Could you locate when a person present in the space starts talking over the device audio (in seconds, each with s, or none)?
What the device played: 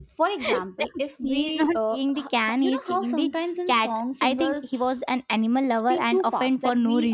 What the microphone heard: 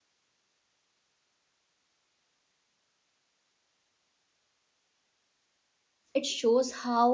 6.1 s